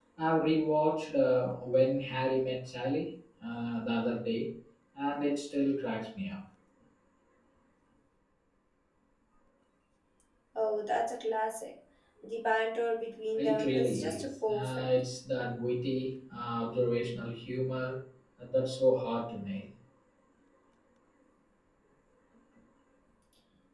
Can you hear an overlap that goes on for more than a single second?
Yes, from 13.4 s

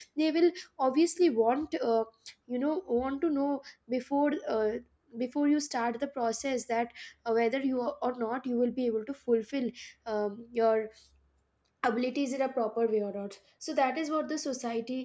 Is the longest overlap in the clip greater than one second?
No

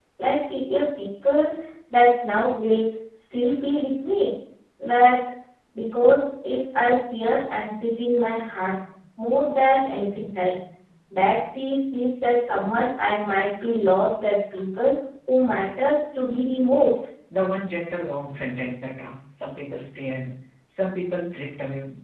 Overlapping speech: No

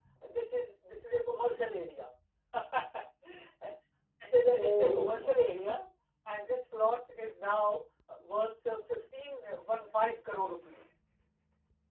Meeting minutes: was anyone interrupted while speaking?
Yes, from 4.5 s

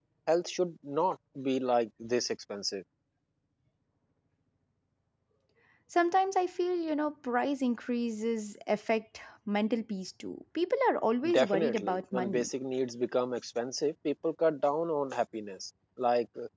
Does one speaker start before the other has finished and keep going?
Yes, from 11.2 s

